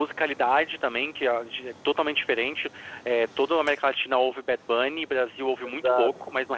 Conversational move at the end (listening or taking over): listening